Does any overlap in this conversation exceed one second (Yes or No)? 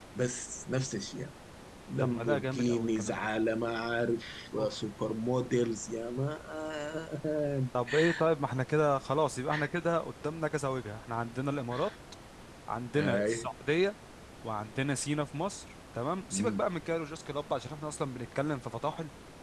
Yes